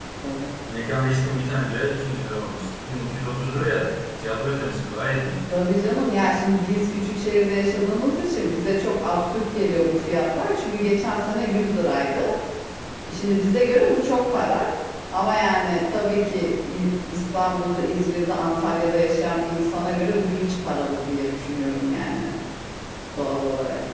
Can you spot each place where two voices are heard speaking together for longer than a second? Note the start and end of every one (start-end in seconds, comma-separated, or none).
none